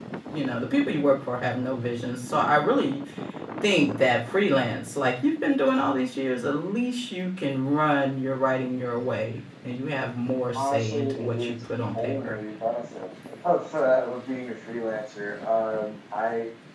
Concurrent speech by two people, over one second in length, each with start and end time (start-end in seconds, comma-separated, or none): 10.5-12.3